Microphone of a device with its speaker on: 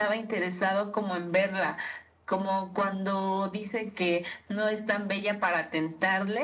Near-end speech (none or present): none